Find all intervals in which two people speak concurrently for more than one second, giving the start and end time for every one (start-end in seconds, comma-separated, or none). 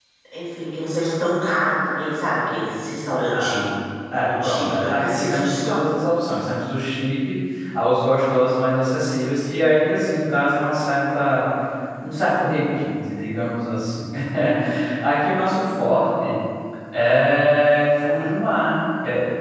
4.2-5.8